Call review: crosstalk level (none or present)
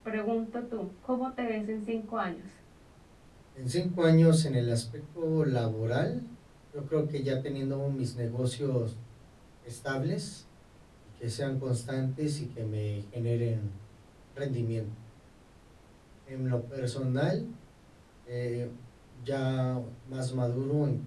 none